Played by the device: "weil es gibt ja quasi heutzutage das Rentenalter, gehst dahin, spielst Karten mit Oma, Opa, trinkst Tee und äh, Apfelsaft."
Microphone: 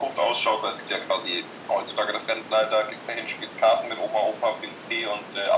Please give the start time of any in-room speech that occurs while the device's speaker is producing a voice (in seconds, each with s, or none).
none